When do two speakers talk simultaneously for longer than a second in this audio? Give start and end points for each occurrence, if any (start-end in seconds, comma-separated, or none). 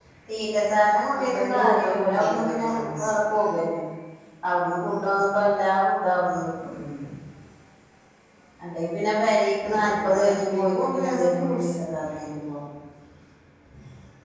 1.2-3.1, 9.7-11.7